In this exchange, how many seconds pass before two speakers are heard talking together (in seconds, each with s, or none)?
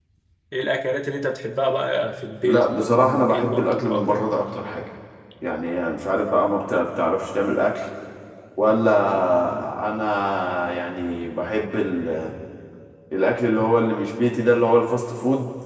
2.4 s